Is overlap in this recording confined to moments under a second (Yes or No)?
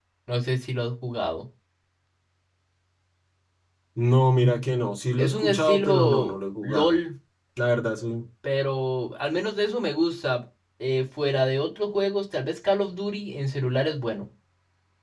No